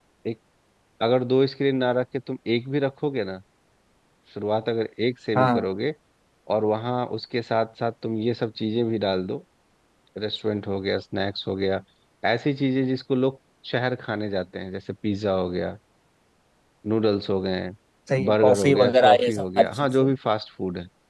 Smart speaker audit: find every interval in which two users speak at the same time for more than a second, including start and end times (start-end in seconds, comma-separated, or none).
18.2-20.1